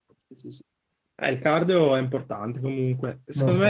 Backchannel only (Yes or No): Yes